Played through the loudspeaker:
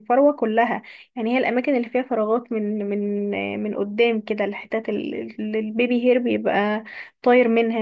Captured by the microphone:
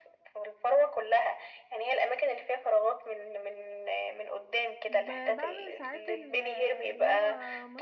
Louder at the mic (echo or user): echo